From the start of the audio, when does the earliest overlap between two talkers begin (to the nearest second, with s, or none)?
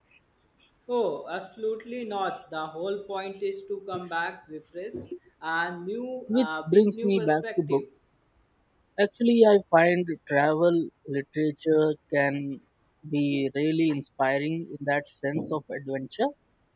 6 s